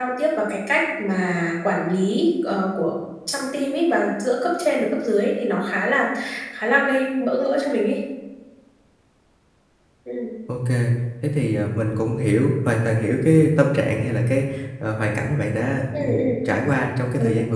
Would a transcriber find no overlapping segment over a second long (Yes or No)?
Yes